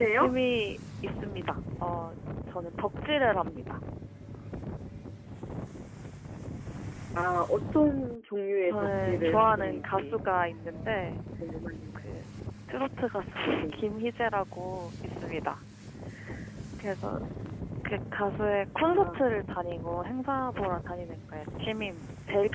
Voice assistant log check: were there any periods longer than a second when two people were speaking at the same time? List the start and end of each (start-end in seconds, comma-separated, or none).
8.6-10.2